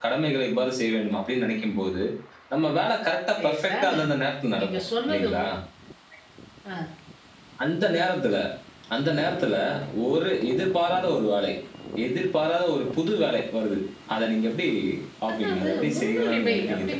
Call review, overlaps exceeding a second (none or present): present